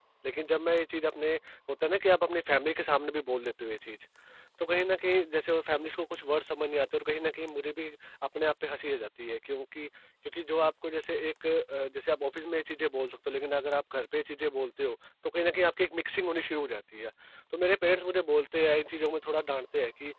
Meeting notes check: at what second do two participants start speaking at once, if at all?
none

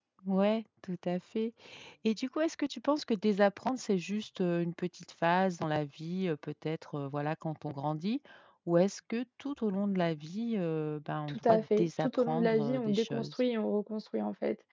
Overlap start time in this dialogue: 11.3 s

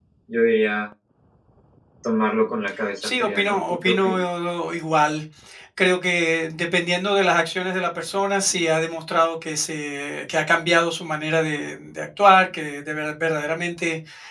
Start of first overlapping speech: 3.0 s

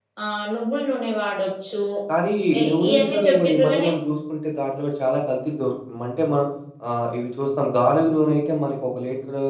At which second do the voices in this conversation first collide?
2.6 s

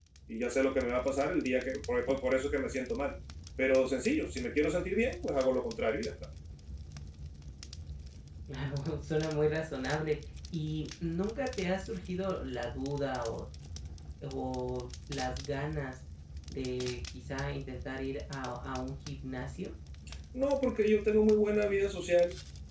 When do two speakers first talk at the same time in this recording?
none

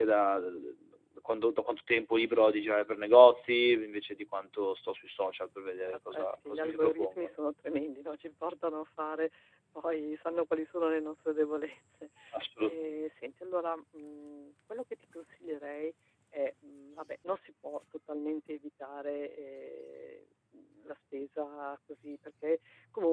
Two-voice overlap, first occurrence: 5.8 s

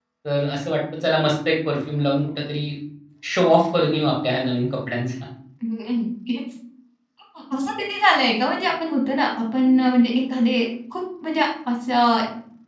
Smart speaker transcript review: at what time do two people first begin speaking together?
none

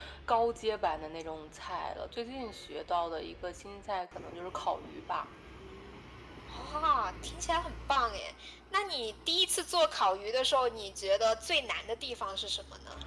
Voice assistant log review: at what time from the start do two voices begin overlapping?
none

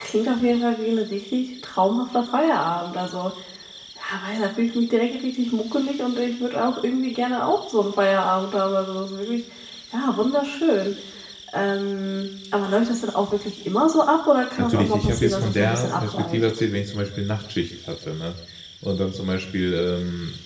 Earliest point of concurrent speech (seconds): 14.6 s

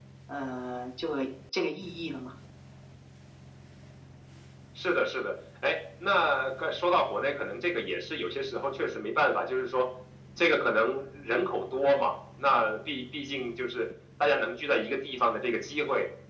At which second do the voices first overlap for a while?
none

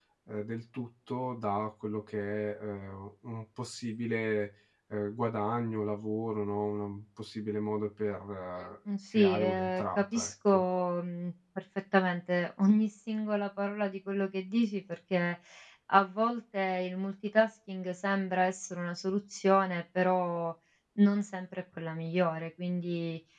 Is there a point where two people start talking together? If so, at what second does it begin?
9.1 s

